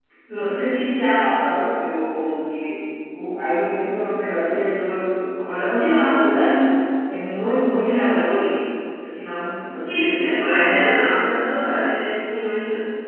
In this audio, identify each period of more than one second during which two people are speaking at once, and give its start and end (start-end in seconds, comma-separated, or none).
9.9-11.1